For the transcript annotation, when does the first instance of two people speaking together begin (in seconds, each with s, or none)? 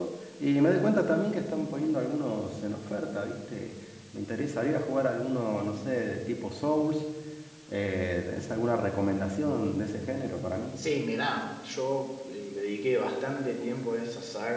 none